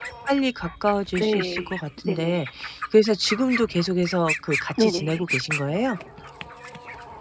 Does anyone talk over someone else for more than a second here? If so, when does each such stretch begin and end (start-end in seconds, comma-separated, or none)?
1.2-2.4